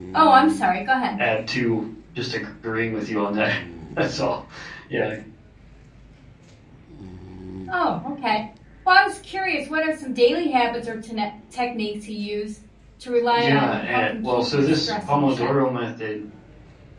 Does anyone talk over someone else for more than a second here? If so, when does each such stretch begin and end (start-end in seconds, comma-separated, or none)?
13.3-15.5